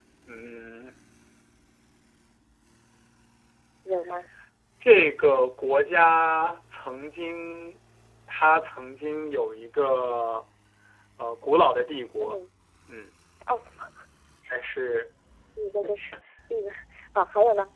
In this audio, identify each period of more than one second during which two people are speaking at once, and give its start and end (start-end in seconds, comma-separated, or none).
none